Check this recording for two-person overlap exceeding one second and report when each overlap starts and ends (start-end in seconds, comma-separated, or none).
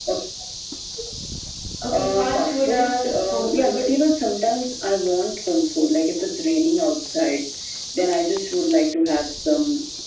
2.0-3.9